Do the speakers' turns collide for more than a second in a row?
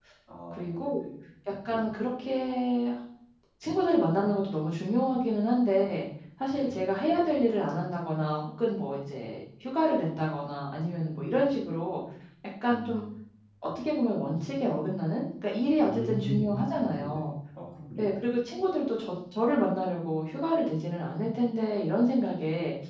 Yes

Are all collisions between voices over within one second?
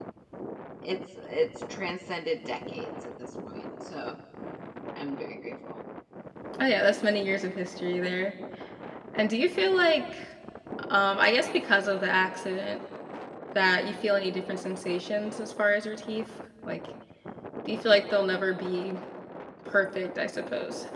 Yes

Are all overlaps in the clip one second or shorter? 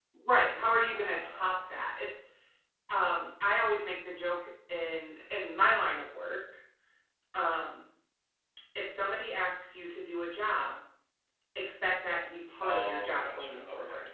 No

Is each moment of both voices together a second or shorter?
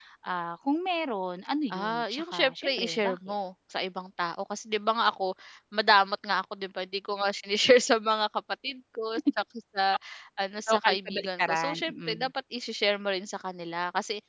No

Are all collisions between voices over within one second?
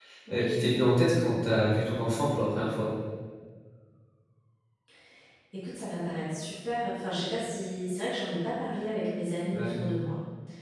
Yes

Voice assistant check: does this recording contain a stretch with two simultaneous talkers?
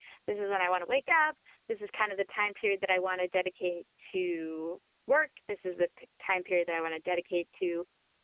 No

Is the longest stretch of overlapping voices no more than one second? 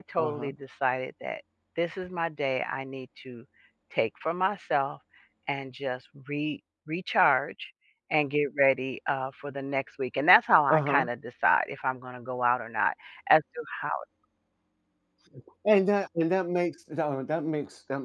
Yes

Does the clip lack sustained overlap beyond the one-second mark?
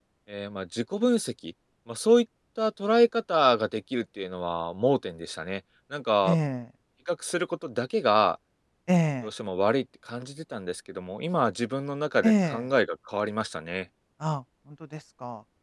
Yes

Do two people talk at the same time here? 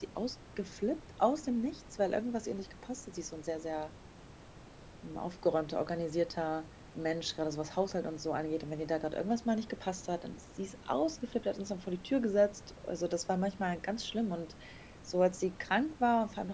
No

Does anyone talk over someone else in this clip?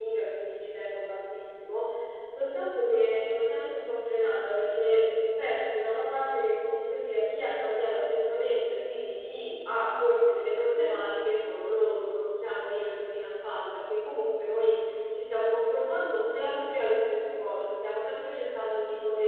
No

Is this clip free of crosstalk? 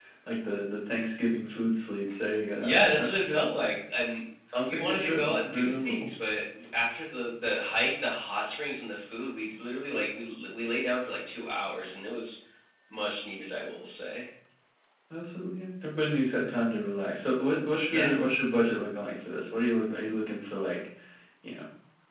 No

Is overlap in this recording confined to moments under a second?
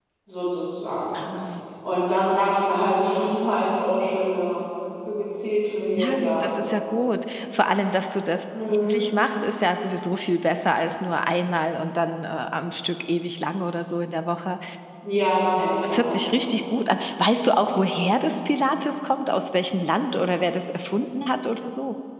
Yes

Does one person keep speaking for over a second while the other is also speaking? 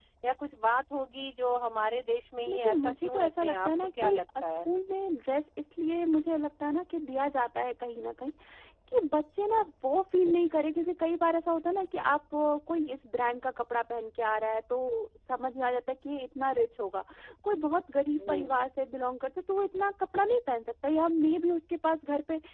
Yes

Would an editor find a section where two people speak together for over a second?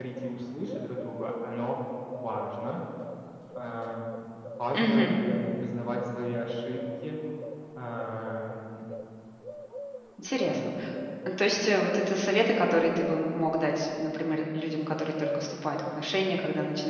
No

